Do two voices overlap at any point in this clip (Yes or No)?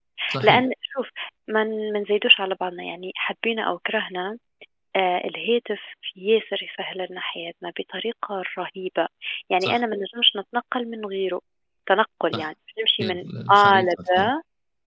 Yes